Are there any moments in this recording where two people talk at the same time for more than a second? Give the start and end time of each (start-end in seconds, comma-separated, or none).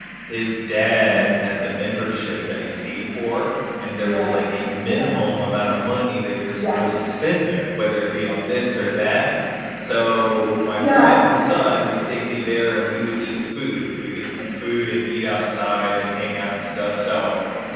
none